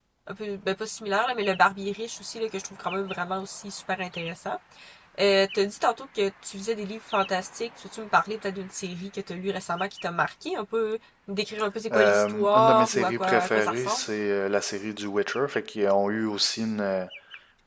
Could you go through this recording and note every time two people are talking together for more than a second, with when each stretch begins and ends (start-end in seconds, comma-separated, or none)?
11.9-14.0